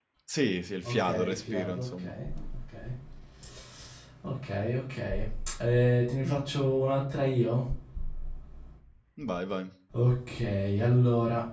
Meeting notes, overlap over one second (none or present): present